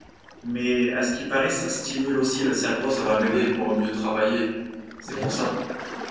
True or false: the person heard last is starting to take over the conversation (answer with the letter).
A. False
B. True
B